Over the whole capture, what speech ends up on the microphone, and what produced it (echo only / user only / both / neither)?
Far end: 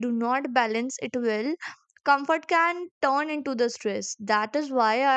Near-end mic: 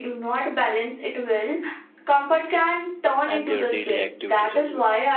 both